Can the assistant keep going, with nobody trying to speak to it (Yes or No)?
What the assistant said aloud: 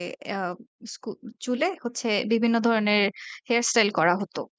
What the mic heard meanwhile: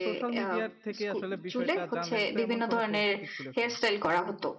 No